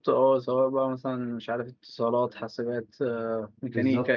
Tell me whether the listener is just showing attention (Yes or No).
No